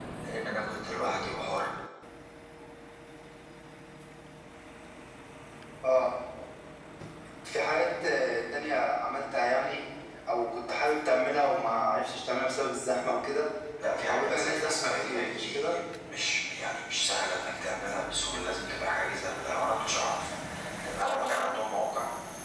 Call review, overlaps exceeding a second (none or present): present